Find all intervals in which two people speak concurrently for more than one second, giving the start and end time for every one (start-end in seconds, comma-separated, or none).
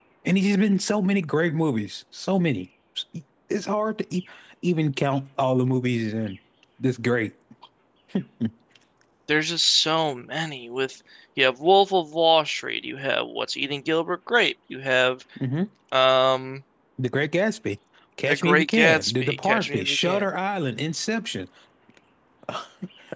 18.3-20.2